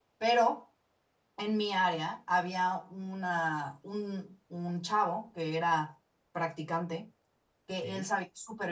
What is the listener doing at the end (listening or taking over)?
listening